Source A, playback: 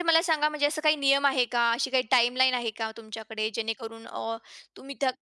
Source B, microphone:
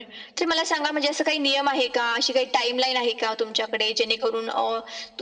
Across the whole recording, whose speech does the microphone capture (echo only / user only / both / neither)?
echo only